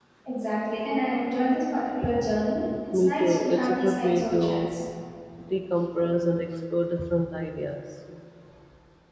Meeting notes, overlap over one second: present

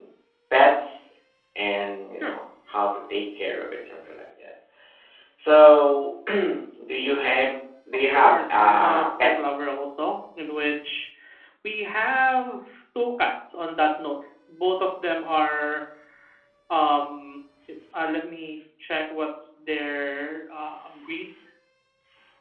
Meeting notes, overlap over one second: present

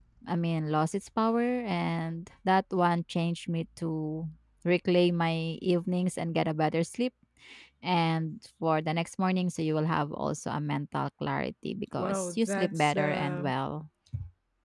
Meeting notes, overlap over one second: present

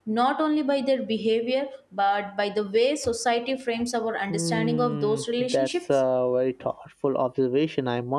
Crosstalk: present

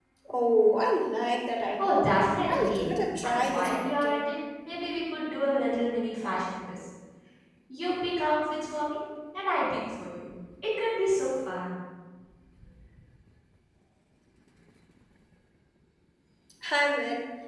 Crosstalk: present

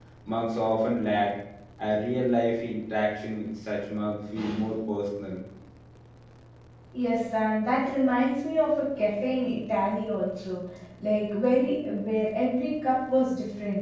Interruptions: none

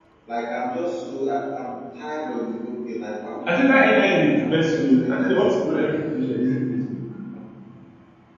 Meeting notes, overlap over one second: present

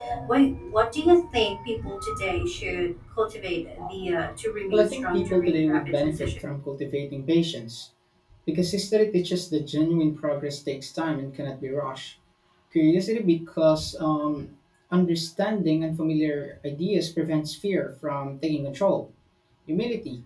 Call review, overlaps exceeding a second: present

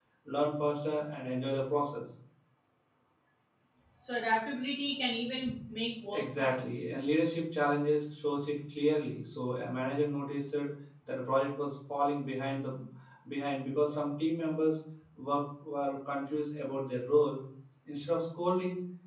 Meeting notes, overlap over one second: none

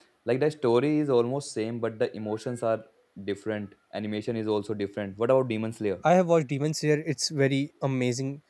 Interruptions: none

